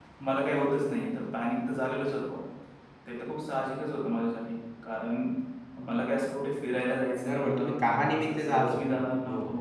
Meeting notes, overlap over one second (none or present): present